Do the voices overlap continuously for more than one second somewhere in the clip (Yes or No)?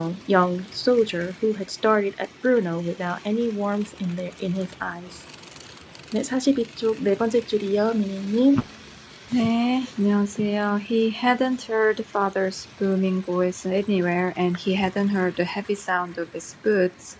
No